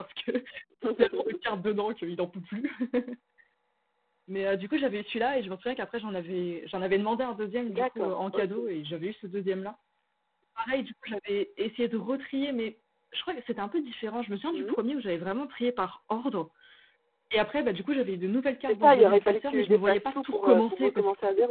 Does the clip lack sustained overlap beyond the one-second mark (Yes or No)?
No